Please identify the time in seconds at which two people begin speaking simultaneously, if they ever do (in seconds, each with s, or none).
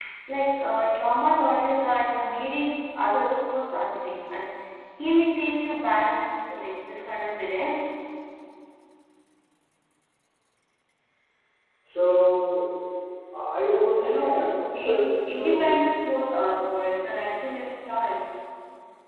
14.0 s